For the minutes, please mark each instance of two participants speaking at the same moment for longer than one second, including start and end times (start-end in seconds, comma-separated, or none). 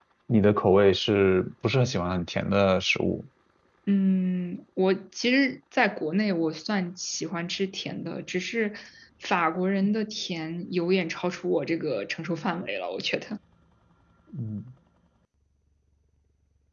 none